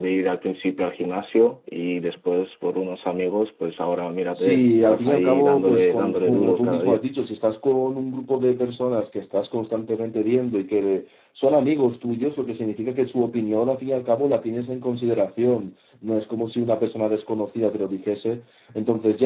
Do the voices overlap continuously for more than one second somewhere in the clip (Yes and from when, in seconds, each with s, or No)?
Yes, from 4.4 s